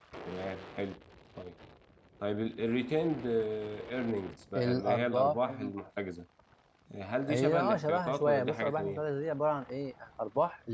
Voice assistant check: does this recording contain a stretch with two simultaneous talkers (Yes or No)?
Yes